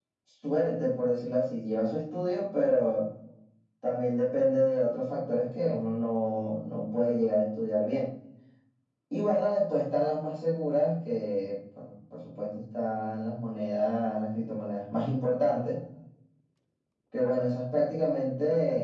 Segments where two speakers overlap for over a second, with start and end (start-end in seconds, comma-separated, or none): none